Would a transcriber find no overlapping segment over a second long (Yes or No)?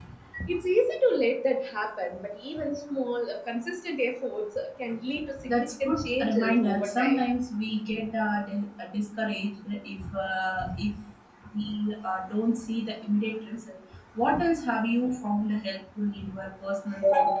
No